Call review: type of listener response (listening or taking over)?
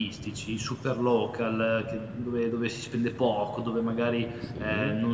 listening